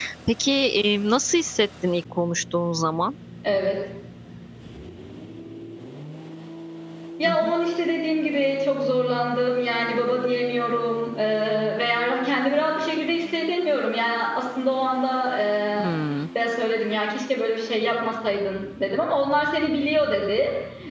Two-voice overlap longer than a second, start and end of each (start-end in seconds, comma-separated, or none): none